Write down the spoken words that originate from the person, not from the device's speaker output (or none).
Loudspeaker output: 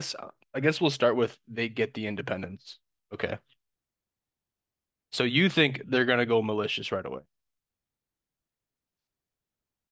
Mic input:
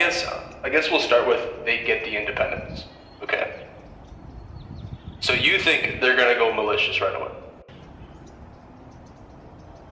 none